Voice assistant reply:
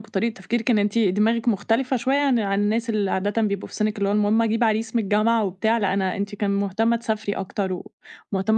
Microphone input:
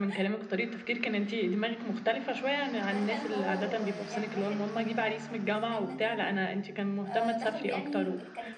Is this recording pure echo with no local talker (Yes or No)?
No